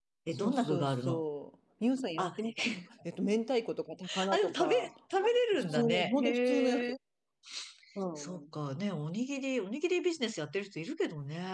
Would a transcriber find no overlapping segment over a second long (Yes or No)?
No